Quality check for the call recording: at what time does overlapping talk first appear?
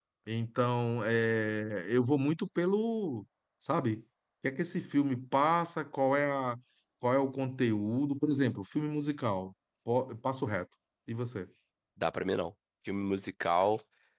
none

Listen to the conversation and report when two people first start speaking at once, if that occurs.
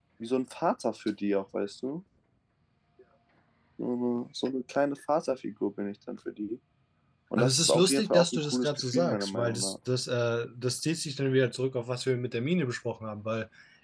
7.4 s

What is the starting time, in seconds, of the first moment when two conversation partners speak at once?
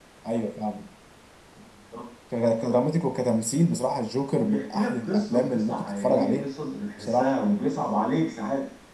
4.3 s

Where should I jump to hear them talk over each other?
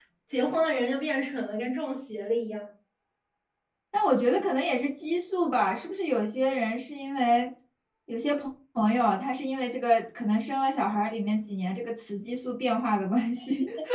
none

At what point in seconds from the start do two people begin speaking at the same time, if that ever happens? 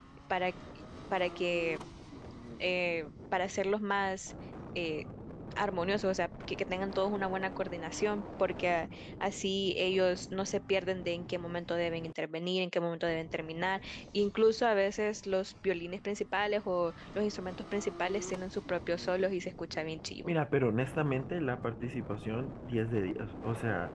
none

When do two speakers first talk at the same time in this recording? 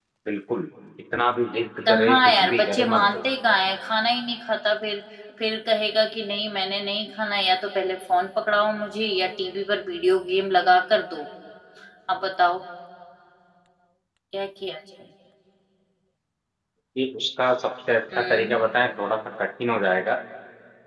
1.8 s

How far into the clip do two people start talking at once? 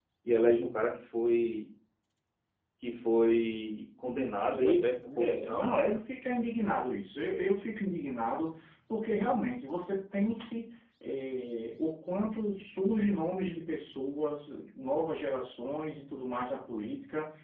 4.5 s

